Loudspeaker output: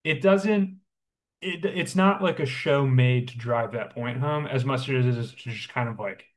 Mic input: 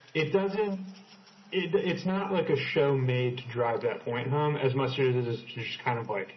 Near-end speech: none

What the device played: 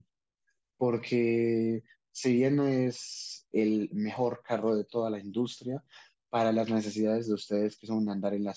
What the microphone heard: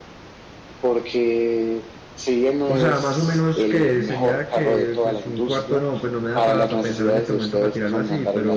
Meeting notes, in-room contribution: present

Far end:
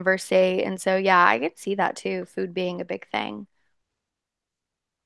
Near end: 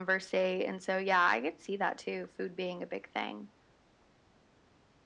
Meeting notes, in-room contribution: none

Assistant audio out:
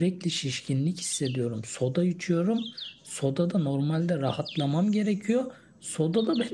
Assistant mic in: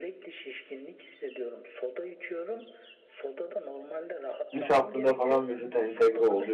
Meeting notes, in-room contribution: present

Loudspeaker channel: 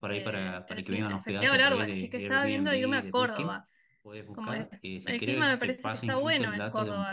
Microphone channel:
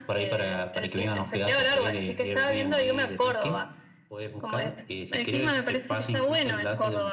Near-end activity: none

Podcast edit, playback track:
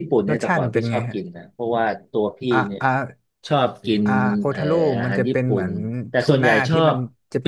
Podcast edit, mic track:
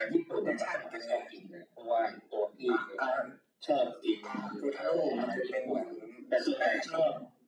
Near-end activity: none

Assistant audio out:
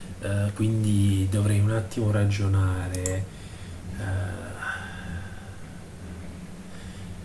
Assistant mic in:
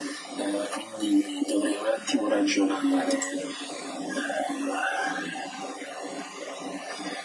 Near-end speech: none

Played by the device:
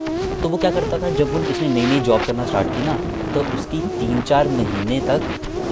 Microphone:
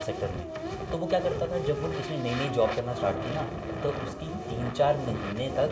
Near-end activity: none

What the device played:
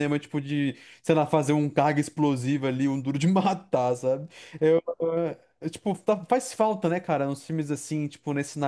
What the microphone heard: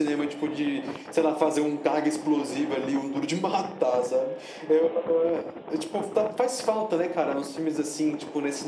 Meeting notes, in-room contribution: none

